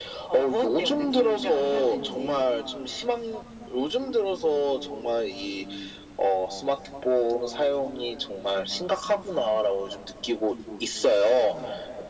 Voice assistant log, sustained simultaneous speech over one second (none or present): present